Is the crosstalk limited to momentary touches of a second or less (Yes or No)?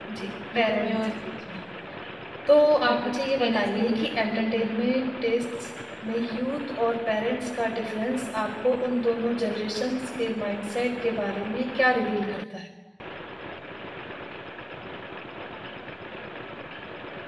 No